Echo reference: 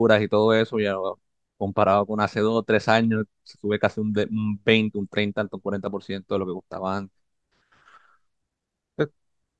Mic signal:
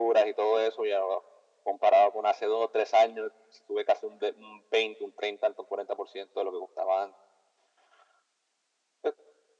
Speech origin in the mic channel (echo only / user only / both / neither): echo only